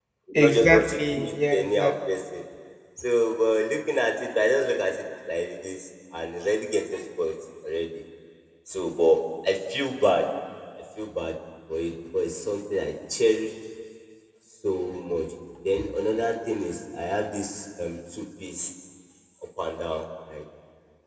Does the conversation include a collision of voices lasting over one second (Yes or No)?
Yes